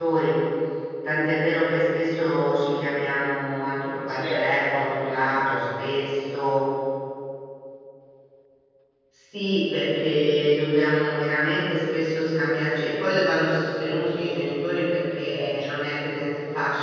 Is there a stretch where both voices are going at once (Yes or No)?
Yes